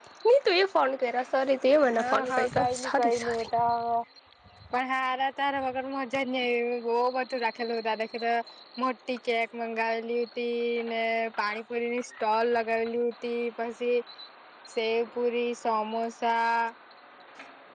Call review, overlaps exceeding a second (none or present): present